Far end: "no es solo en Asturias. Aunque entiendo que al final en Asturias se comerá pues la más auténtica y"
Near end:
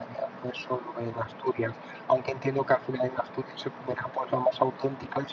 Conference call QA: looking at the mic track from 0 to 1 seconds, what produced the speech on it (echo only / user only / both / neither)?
echo only